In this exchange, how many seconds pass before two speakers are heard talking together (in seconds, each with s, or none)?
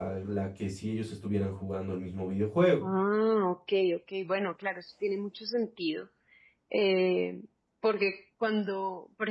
none